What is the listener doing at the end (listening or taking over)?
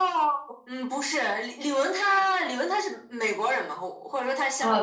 taking over